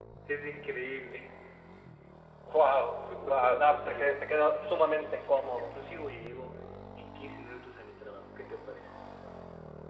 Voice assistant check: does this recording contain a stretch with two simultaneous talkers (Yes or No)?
Yes